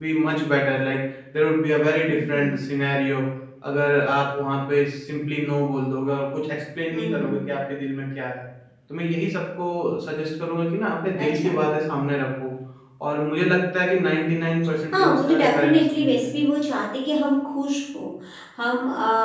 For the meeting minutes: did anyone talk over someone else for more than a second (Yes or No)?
Yes